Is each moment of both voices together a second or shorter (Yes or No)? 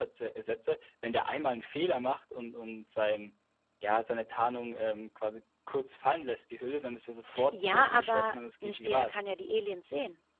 No